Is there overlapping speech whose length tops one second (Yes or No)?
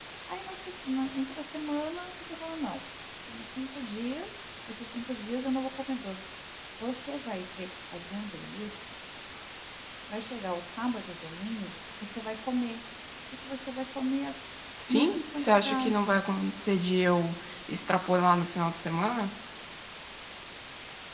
Yes